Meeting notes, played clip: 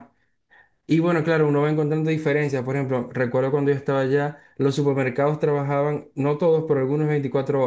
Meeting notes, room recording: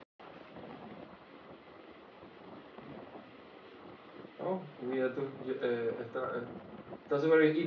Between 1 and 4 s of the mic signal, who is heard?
neither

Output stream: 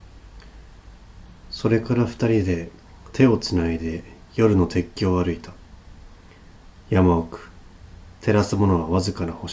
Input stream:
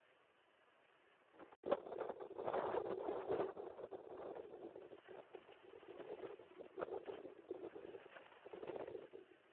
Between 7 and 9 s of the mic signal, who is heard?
neither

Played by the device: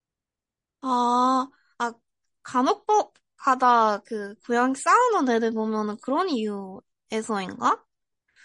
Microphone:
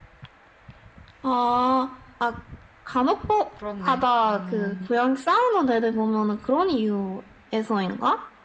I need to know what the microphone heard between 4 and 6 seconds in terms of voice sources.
both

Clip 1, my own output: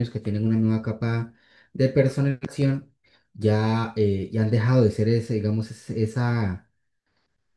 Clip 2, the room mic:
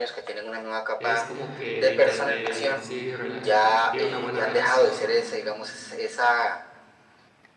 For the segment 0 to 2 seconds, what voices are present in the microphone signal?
both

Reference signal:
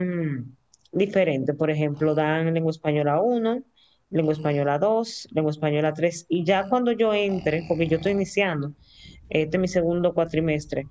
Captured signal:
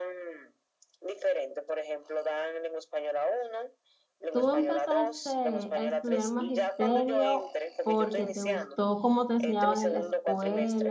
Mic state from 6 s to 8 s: both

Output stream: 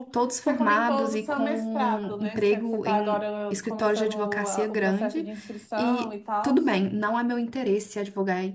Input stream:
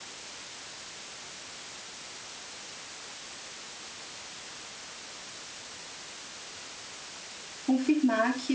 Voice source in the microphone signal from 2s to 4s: neither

